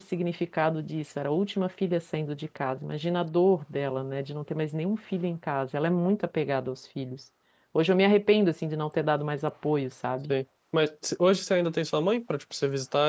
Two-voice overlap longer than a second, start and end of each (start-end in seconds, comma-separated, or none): none